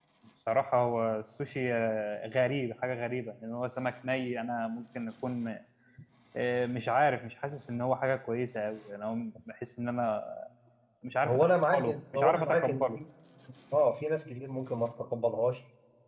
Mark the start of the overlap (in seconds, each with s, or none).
11.2 s